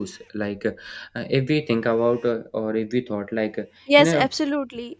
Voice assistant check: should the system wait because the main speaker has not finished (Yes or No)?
No